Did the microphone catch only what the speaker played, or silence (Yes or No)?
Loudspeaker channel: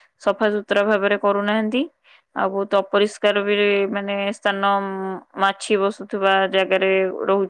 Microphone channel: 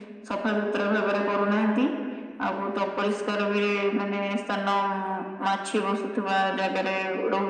Yes